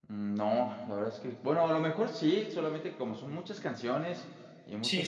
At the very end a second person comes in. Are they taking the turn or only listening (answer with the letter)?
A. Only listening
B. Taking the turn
A